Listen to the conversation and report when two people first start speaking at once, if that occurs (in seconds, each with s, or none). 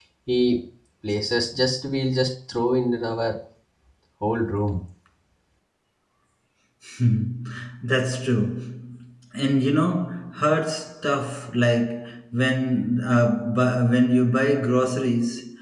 none